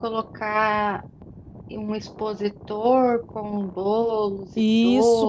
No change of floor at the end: No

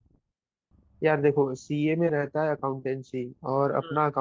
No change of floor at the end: Yes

